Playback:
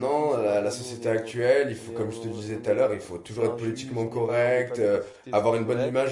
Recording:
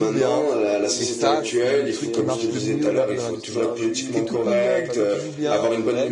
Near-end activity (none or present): present